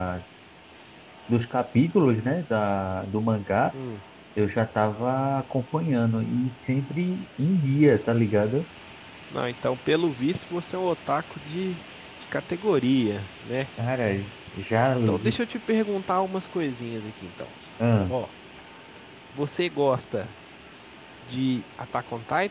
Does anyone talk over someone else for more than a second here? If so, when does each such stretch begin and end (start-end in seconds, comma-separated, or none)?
none